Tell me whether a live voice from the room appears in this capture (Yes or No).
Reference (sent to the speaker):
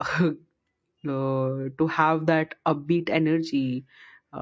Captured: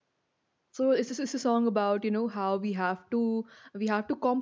Yes